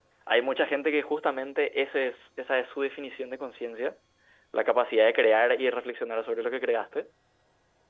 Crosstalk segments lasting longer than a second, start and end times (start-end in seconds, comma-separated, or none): none